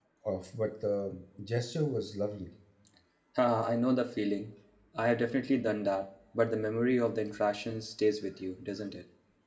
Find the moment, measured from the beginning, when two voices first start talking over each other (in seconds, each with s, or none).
none